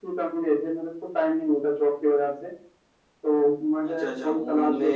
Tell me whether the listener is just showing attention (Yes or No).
No